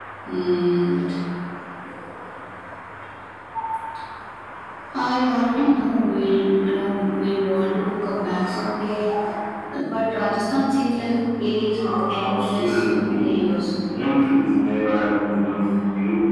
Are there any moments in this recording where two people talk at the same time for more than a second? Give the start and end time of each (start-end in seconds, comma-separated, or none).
11.8-13.2